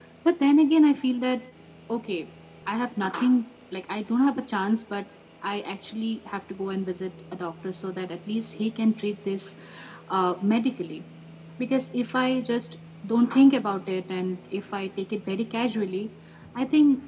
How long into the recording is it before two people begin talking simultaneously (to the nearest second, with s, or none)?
none